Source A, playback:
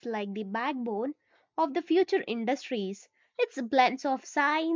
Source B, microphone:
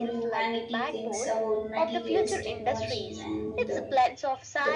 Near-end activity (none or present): present